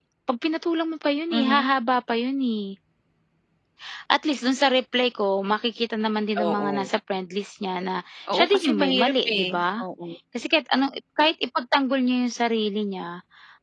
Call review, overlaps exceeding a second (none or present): present